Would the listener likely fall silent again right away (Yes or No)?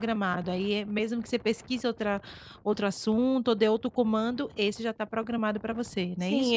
No